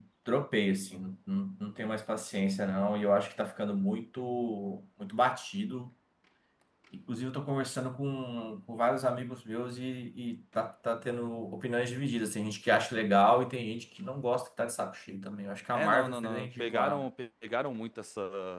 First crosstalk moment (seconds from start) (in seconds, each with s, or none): 15.7 s